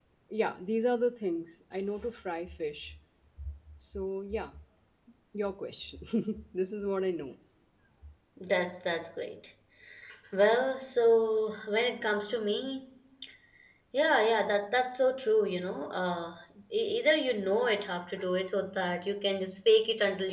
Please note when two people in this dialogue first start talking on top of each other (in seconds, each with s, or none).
none